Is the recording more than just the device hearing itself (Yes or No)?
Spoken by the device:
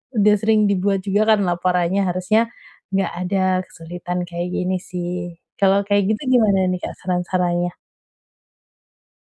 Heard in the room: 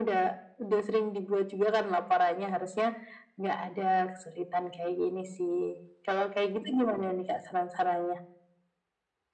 No